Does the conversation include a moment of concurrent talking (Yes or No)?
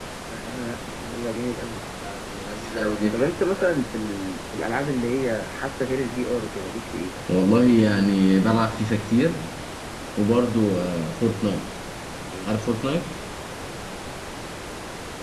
No